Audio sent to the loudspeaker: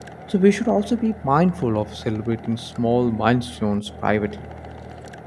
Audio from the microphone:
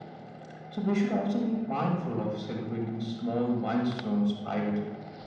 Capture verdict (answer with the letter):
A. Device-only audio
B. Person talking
A